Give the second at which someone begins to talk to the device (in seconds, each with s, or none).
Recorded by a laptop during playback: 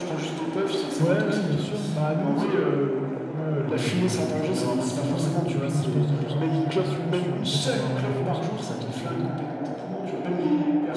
1.0 s